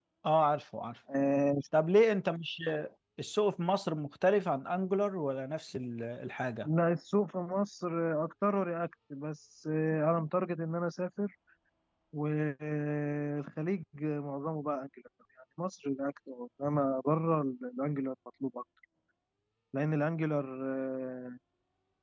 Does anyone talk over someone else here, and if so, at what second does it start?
none

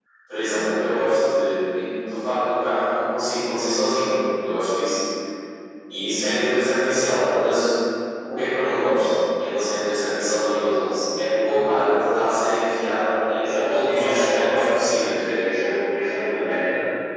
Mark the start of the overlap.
13.4 s

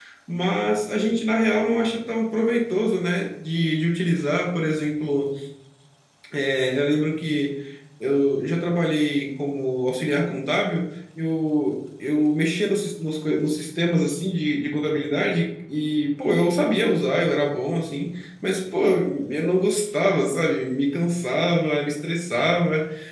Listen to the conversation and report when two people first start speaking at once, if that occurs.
none

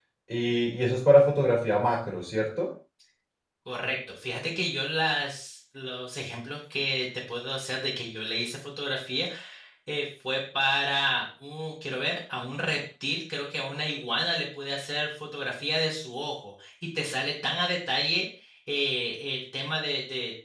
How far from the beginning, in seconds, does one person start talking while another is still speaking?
none

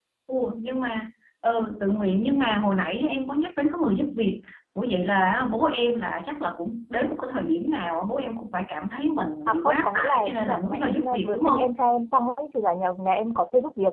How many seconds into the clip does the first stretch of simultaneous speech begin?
9.5 s

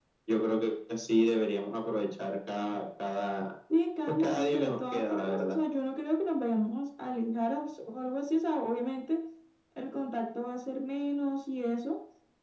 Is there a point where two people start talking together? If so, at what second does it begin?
4.1 s

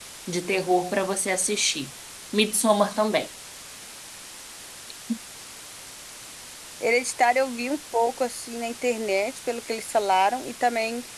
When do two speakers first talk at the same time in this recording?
none

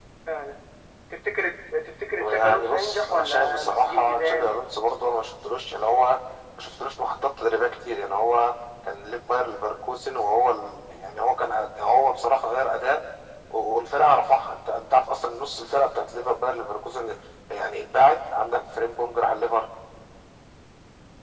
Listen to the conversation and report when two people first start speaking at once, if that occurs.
2.2 s

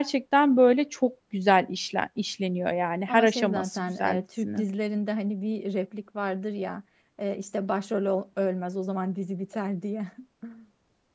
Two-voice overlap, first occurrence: 3.1 s

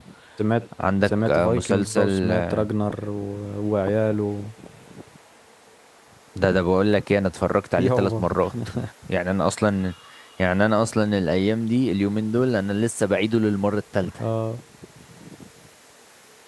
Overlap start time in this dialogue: 1.1 s

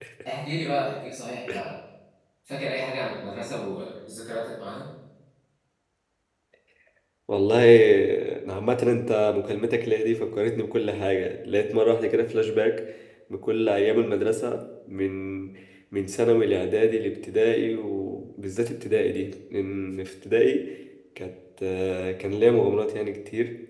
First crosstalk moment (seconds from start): none

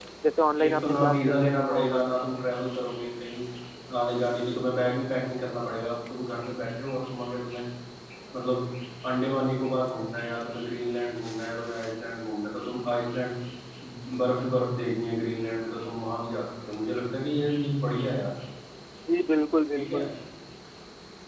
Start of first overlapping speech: 0.6 s

